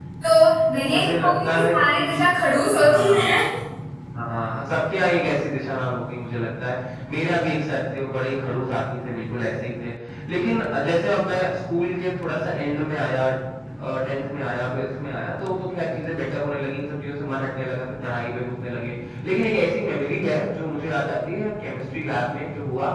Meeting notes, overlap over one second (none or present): present